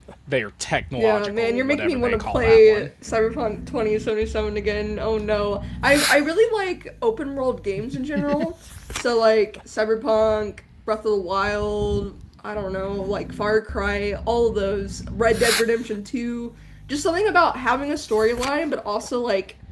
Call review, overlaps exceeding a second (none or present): present